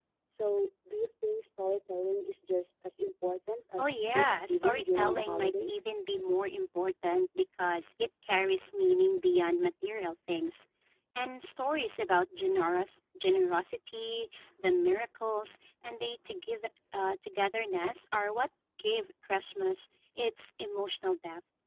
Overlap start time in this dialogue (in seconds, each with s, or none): 3.8 s